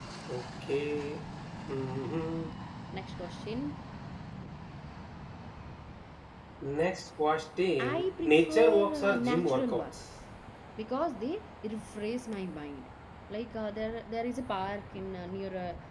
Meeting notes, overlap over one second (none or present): present